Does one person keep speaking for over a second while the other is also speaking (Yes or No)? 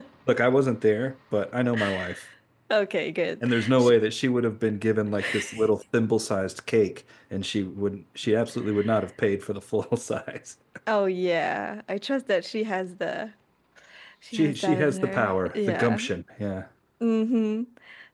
Yes